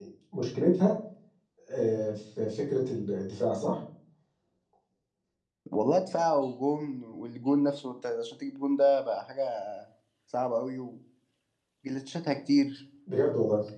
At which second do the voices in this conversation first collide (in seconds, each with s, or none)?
none